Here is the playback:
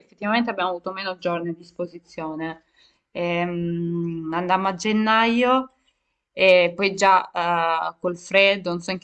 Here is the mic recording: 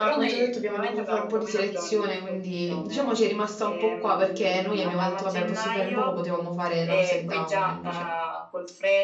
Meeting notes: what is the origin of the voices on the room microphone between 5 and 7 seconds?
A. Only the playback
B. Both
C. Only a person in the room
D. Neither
B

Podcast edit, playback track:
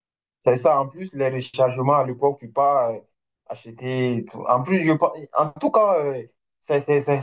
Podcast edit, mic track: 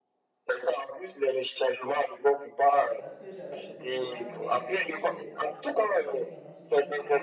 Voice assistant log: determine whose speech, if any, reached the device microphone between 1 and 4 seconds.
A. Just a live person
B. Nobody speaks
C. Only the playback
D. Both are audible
D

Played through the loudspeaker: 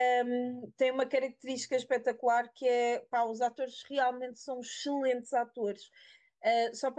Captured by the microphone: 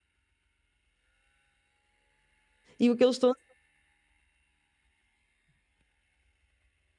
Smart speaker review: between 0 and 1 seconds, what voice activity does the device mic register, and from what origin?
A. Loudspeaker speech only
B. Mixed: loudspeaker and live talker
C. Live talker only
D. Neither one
D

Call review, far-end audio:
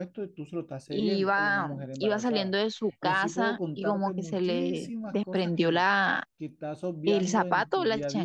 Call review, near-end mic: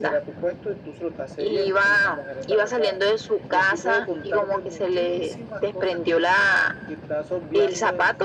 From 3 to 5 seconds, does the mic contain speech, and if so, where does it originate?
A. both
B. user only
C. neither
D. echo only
D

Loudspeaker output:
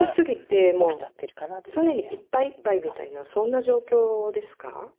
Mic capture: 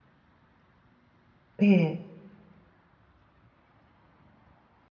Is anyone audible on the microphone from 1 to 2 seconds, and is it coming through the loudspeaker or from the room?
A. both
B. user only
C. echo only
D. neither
B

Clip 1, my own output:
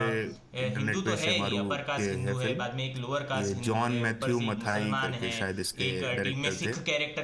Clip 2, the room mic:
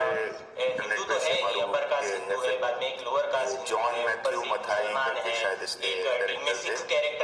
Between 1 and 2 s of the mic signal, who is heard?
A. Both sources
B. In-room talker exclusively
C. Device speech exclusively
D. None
C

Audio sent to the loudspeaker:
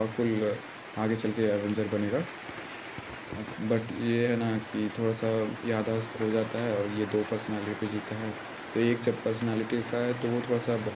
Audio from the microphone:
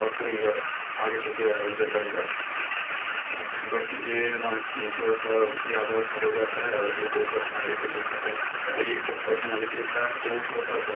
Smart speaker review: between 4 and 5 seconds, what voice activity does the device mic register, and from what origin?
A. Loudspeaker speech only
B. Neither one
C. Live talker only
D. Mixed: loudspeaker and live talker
A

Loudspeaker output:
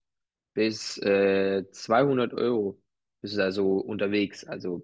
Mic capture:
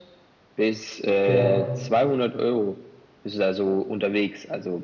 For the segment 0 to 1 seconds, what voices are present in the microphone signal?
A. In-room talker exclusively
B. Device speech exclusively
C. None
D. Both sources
B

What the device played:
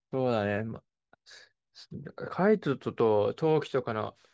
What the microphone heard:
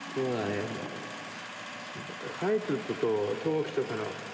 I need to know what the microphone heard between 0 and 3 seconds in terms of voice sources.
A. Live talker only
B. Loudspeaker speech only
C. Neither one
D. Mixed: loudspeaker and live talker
B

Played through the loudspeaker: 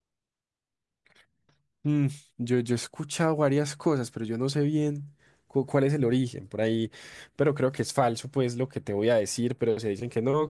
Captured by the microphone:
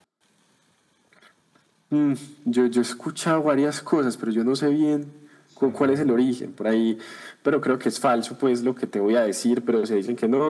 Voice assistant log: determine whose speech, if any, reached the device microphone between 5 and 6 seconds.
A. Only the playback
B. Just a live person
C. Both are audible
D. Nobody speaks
C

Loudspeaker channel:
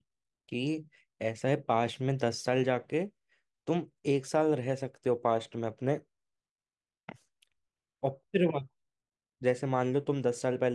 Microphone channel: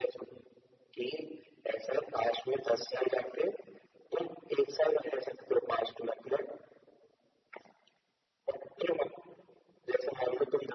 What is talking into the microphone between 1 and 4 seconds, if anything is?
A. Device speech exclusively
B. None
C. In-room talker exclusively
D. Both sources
A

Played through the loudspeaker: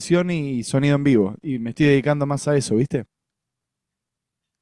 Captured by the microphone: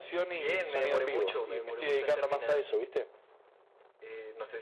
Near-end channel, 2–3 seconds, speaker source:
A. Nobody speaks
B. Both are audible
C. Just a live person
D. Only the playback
B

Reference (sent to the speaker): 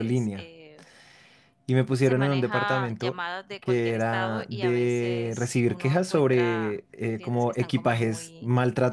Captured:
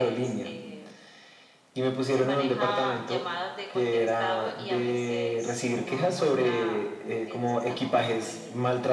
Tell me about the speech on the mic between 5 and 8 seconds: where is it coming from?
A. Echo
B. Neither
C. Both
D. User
A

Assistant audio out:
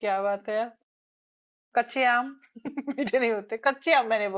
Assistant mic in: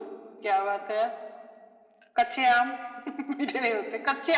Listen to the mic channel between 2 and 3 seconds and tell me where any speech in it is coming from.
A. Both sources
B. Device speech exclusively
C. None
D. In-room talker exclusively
B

